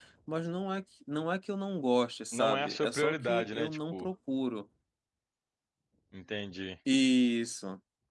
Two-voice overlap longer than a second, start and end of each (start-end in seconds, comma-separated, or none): 2.3-4.1